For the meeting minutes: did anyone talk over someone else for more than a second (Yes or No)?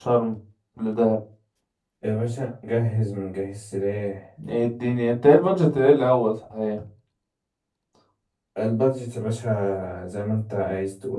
No